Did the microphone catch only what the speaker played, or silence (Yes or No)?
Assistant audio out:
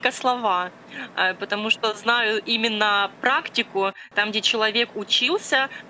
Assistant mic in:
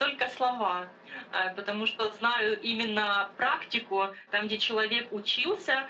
Yes